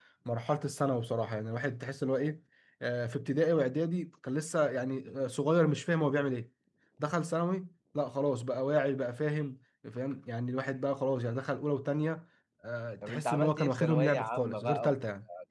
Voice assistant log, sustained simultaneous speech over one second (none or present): present